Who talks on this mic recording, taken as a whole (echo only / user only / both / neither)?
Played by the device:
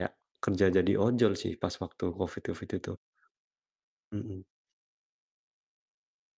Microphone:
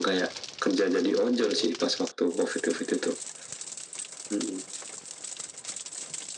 echo only